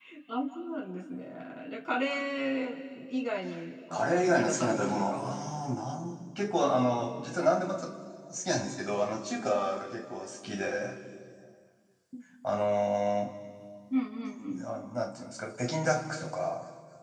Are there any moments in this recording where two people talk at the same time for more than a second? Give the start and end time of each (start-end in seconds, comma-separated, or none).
3.9-5.4